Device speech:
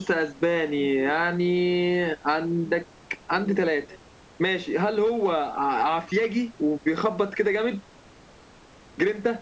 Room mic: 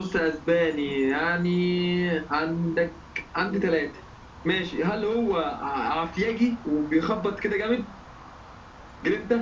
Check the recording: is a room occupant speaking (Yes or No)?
No